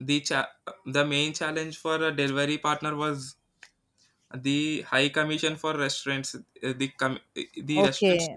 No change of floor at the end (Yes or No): No